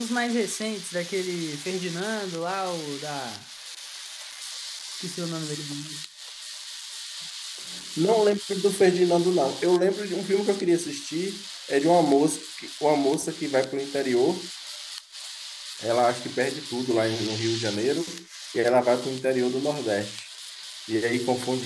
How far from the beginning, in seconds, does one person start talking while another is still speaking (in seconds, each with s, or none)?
none